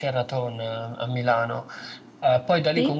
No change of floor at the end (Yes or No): Yes